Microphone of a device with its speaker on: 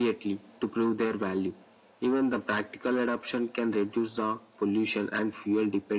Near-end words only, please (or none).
none